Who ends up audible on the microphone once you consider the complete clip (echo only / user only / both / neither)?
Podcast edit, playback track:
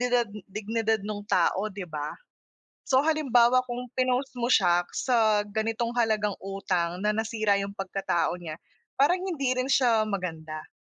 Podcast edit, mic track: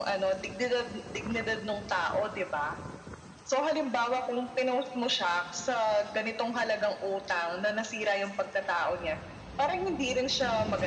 echo only